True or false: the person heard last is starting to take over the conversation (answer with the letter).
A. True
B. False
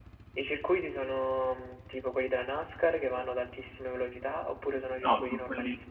A